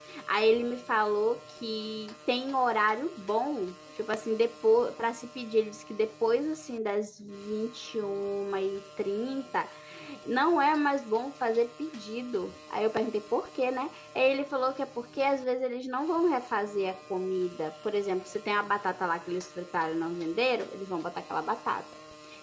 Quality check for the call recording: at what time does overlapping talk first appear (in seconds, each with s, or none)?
none